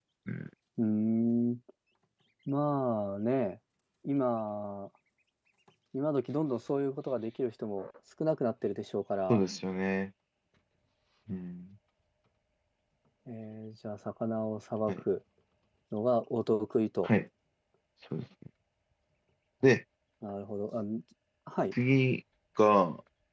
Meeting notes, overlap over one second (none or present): none